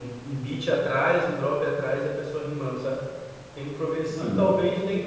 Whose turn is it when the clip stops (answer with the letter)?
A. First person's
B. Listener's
A